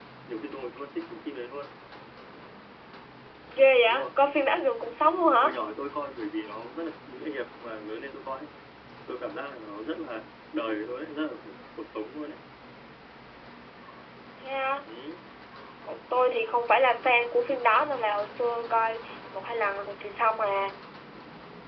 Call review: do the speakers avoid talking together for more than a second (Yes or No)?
Yes